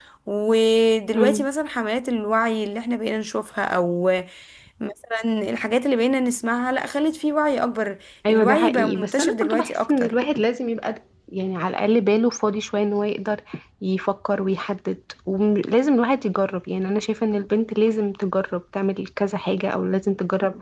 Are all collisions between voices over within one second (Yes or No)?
No